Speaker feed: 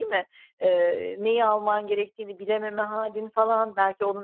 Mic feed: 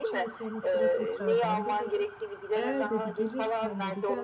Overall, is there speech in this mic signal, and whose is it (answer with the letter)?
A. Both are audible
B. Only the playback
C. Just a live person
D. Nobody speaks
A